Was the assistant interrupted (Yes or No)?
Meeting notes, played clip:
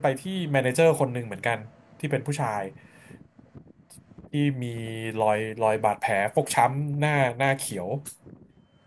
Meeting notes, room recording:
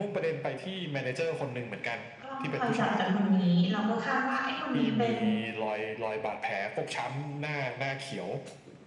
Yes